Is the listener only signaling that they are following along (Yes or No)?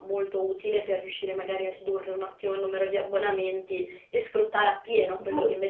No